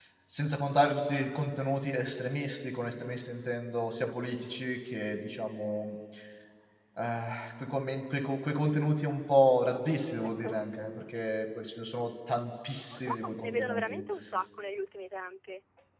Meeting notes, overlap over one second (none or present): present